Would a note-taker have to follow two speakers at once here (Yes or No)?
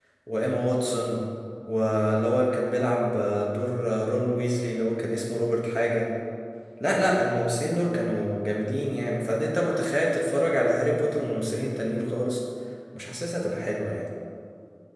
No